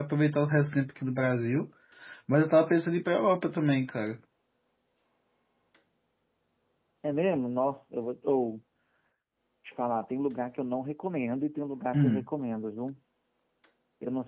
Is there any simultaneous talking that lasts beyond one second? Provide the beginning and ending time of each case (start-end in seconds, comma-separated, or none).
none